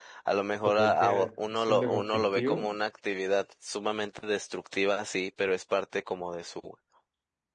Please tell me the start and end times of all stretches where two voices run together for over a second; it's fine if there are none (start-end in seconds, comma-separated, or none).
0.8-2.7